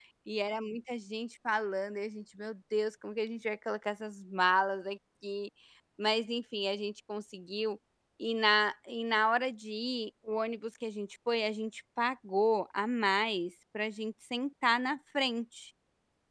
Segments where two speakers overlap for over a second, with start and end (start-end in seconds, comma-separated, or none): none